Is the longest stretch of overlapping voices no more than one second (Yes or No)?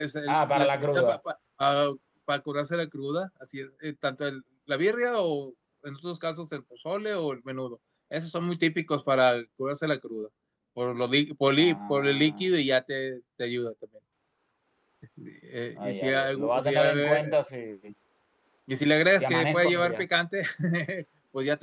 No